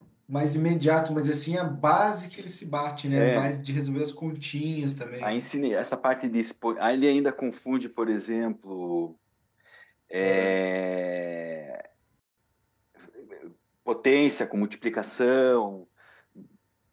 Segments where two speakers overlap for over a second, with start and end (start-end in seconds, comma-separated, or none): none